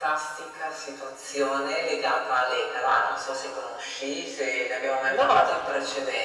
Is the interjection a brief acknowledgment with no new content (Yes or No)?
Yes